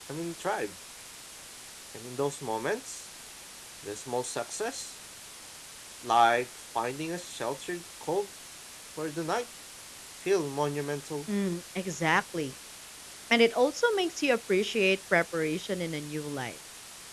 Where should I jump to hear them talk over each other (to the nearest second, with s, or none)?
none